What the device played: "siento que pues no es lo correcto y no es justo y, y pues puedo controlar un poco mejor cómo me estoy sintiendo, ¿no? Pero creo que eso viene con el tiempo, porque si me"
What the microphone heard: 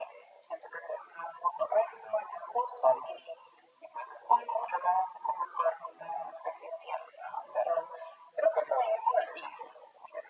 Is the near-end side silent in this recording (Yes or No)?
Yes